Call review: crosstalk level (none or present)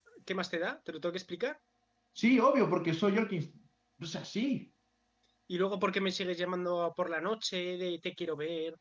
none